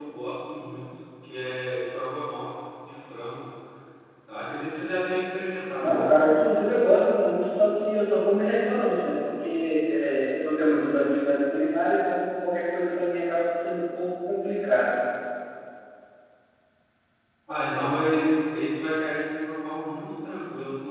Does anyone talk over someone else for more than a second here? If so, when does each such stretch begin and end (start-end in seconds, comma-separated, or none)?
none